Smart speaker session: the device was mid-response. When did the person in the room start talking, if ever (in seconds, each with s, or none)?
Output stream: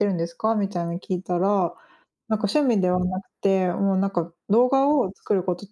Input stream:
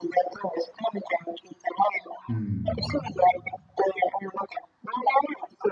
2.3 s